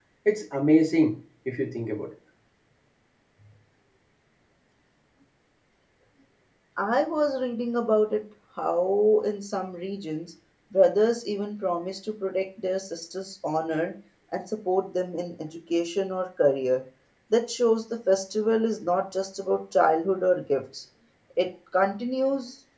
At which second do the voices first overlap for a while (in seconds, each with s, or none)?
none